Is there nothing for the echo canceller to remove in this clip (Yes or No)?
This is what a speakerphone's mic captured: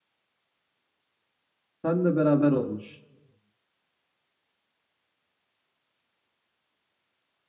Yes